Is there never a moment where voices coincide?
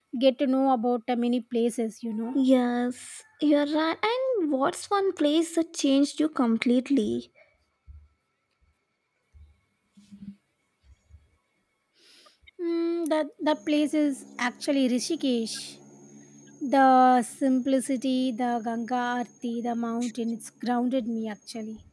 Yes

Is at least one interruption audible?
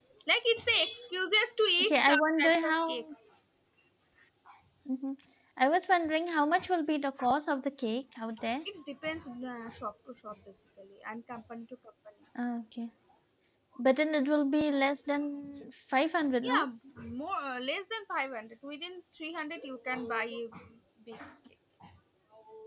Yes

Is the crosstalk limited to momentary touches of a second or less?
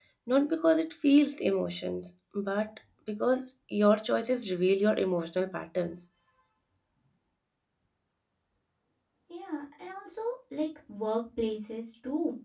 Yes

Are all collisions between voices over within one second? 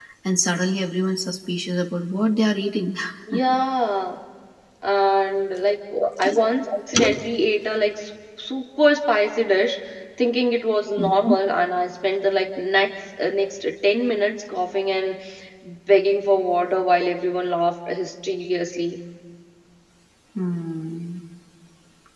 Yes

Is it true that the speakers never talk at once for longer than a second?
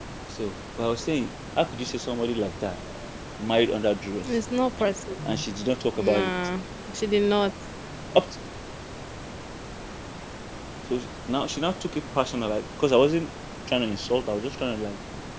Yes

